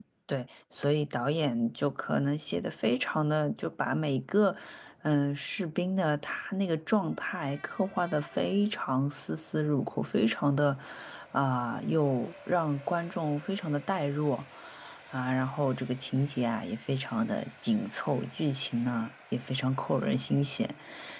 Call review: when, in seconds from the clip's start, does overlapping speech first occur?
none

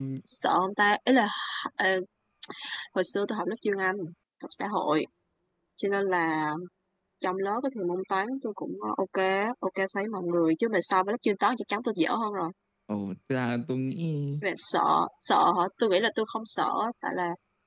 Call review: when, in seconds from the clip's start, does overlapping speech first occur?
none

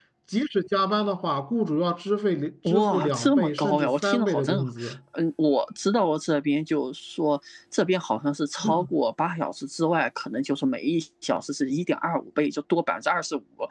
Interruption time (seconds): 2.7 s

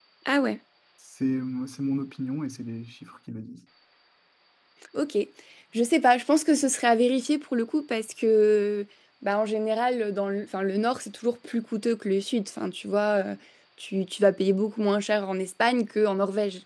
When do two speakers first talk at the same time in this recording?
none

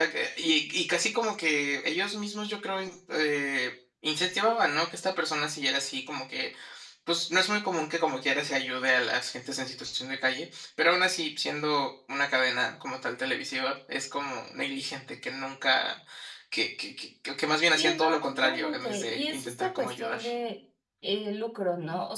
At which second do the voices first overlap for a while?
17.8 s

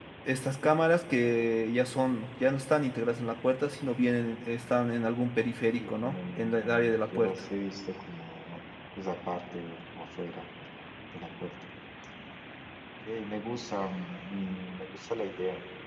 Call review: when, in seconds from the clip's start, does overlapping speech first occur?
5.7 s

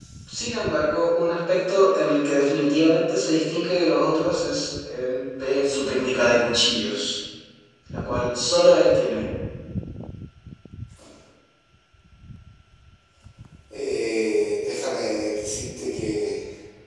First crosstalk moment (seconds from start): none

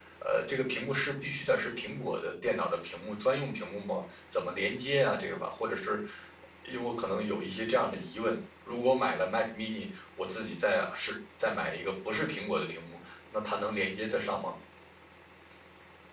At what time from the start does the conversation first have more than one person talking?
none

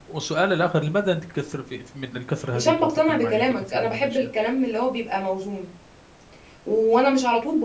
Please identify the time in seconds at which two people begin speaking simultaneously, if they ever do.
2.5 s

